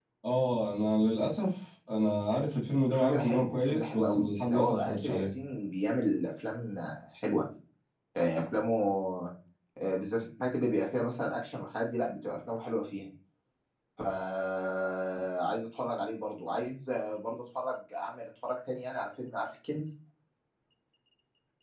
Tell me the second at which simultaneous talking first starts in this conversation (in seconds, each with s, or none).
2.9 s